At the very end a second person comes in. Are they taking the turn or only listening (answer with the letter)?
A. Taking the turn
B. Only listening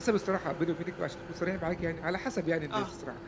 B